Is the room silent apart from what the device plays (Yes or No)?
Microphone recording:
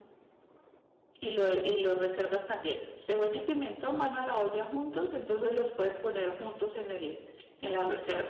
Yes